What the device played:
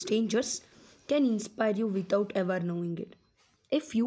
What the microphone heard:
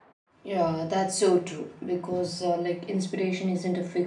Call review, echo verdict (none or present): none